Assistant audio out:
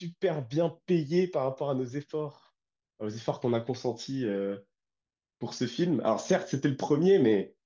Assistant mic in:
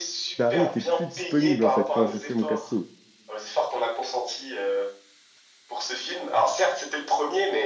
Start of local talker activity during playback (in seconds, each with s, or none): 0.4 s